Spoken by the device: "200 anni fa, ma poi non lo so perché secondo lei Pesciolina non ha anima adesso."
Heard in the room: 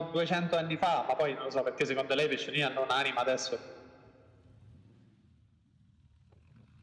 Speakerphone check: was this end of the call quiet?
Yes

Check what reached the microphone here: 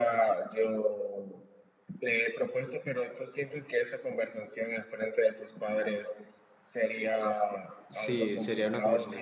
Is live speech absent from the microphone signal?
No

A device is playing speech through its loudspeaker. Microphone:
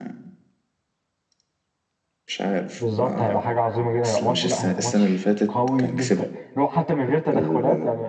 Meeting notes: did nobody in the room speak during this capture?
No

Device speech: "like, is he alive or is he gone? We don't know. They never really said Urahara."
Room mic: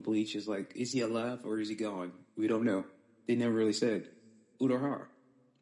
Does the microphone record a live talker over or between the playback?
No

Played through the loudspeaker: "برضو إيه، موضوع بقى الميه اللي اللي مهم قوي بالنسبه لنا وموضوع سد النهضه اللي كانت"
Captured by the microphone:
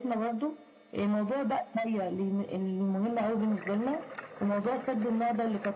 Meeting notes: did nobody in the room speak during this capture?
Yes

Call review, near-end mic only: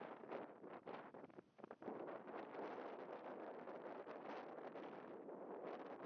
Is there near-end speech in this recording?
No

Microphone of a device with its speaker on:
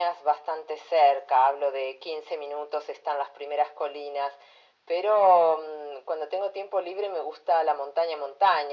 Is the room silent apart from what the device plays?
Yes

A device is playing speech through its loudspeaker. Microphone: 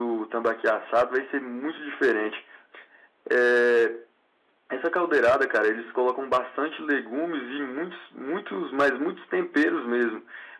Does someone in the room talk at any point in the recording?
No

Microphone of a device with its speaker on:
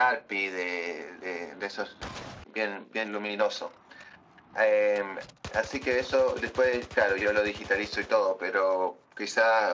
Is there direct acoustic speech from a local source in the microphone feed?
No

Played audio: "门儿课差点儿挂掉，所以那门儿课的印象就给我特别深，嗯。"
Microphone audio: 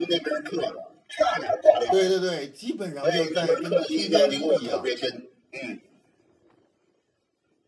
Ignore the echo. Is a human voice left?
Yes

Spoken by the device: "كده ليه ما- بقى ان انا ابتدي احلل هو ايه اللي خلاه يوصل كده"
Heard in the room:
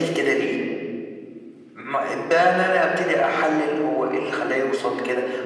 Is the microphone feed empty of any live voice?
Yes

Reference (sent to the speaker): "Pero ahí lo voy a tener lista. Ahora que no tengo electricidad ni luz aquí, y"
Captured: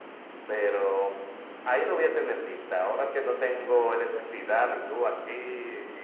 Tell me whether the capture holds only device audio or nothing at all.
Yes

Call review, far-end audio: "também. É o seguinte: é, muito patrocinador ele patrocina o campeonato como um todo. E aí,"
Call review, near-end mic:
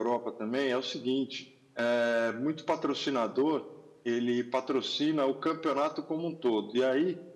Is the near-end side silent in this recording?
Yes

